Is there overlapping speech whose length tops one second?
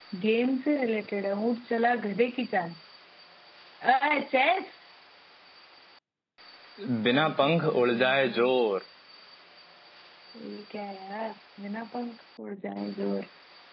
Yes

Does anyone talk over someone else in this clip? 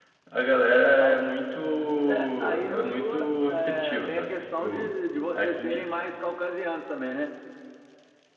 Yes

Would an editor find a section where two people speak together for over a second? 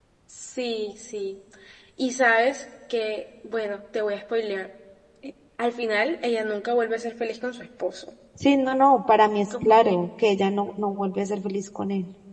No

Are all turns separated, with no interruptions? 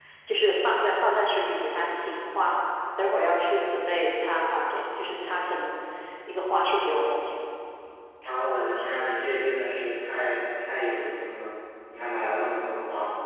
Yes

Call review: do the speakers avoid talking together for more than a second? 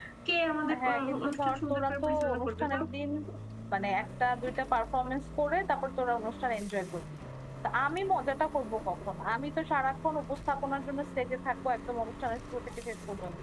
No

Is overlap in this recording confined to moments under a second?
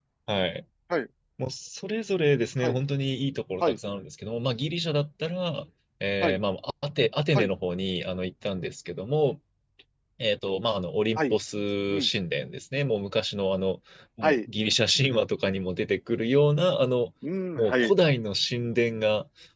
Yes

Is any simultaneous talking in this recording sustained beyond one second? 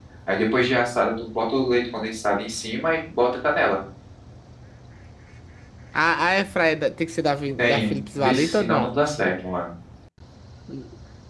Yes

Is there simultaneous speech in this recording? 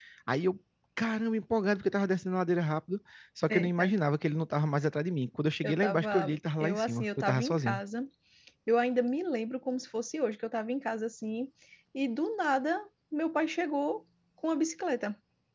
Yes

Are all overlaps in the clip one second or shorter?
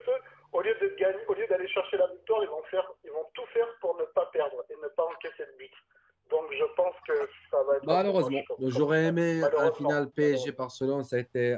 No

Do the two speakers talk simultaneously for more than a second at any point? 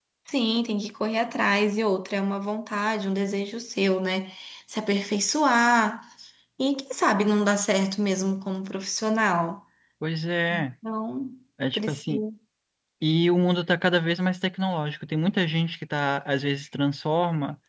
No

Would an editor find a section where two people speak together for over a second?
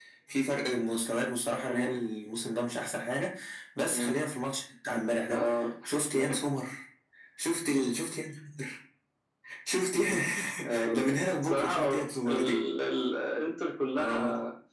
Yes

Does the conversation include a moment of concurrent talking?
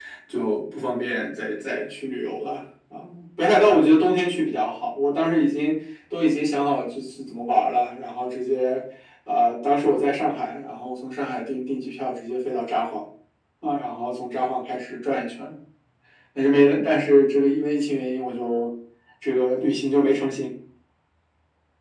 No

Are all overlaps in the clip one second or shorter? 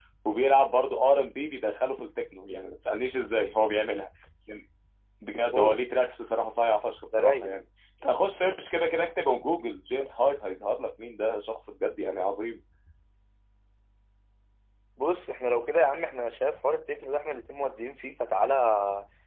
Yes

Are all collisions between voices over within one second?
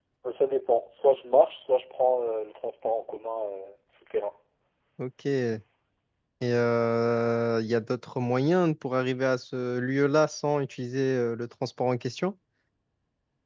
Yes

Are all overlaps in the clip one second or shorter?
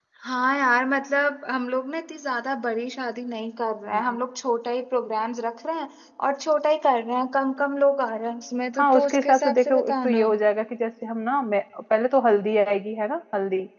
No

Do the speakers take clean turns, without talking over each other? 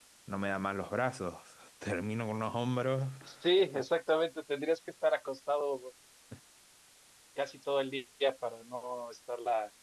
Yes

